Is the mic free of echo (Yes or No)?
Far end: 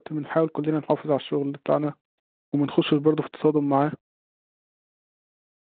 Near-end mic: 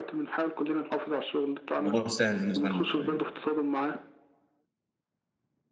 No